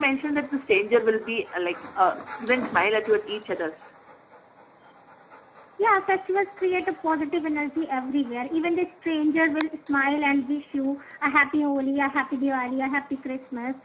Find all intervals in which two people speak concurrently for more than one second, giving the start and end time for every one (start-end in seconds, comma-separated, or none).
none